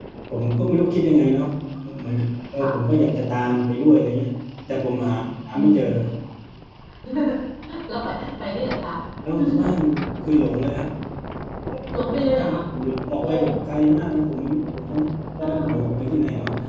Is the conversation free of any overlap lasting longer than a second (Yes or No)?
Yes